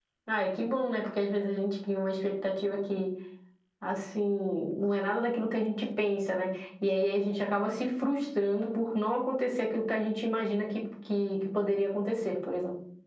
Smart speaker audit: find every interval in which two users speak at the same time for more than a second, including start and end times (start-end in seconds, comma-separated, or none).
none